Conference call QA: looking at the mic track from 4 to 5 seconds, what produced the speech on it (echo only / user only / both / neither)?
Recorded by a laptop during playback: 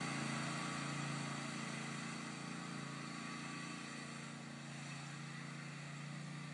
neither